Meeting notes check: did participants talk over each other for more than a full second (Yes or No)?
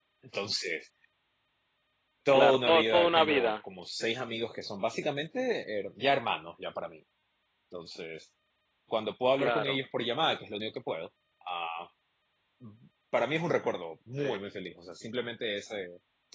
Yes